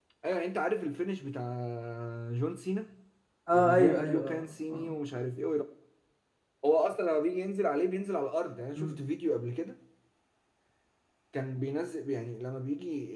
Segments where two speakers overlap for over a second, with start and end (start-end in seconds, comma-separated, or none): 3.5-4.9